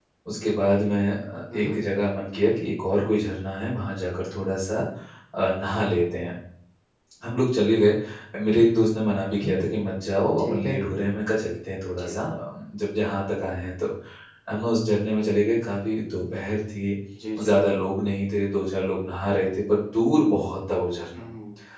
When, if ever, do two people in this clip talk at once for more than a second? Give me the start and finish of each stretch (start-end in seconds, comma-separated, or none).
none